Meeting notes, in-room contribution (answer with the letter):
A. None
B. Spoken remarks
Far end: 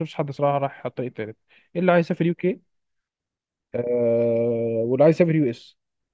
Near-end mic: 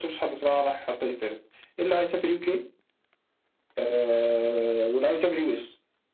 A